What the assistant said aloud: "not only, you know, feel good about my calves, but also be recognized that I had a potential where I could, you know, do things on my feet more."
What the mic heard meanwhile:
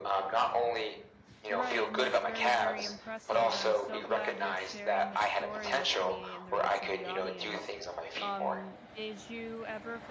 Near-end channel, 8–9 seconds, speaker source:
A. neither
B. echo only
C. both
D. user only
C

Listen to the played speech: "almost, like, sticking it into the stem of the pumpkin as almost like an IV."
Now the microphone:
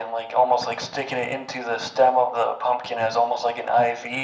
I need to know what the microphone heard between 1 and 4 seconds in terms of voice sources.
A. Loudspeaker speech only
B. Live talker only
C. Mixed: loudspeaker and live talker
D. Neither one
A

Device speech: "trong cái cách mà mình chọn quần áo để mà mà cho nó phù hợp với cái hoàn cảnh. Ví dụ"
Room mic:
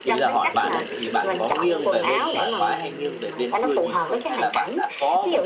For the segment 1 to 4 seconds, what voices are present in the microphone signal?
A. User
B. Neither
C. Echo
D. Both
D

